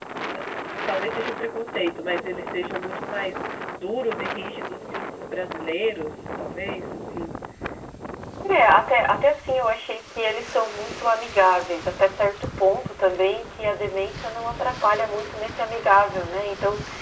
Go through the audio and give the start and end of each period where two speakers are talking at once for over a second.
none

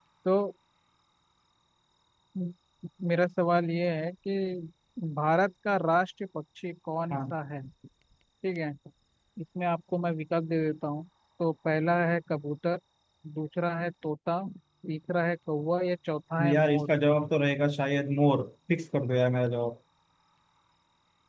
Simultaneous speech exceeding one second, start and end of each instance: none

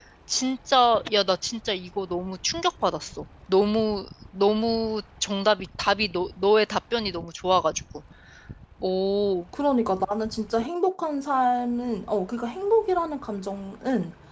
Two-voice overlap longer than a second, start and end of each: none

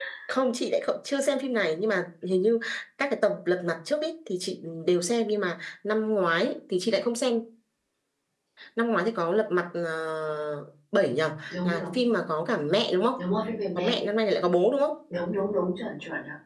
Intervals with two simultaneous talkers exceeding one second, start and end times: none

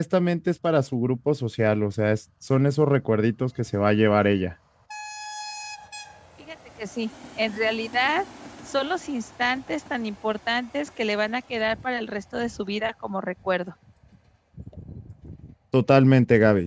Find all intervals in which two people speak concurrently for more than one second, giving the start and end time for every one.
none

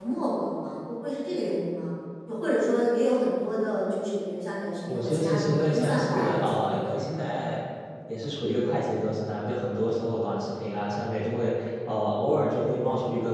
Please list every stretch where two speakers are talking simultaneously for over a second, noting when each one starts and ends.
4.9-6.9

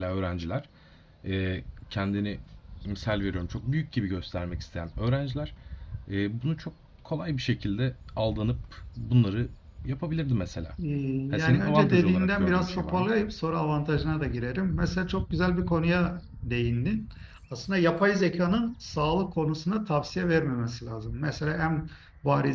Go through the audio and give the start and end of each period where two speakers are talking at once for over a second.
11.3-13.1

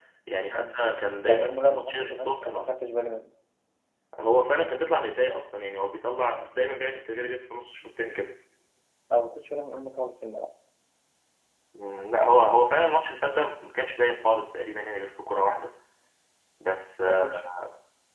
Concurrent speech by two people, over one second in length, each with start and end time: 1.2-2.7

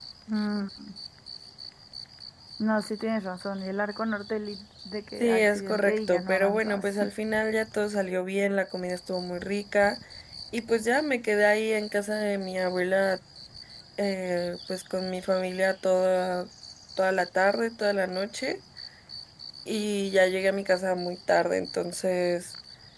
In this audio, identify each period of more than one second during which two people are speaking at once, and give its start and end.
5.2-7.0

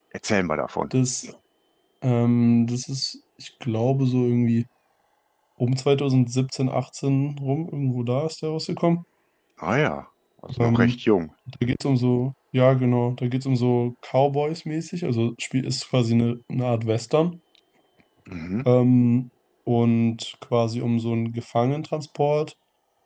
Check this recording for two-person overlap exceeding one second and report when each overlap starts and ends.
none

